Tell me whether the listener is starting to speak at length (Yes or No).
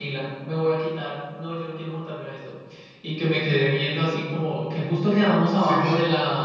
No